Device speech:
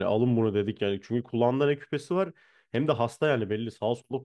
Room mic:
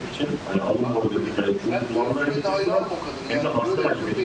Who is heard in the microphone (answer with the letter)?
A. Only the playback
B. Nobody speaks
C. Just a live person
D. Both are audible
D